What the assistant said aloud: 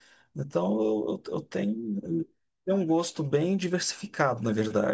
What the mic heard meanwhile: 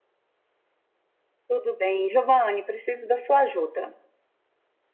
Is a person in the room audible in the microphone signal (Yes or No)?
Yes